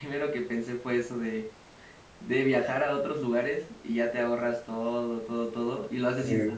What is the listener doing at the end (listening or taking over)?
listening